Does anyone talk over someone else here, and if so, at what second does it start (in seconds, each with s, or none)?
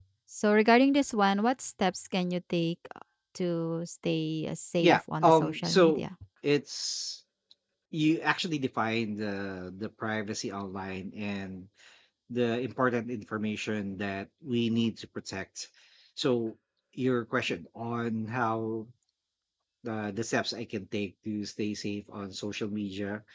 4.8 s